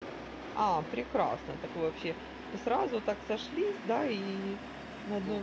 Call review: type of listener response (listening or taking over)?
taking over